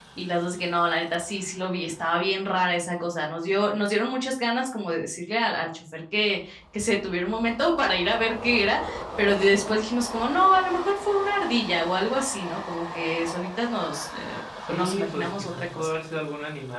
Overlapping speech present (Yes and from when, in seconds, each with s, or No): Yes, from 14.7 s